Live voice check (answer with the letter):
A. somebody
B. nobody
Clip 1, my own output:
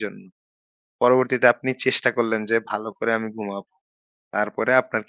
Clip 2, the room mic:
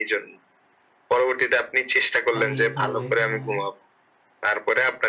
A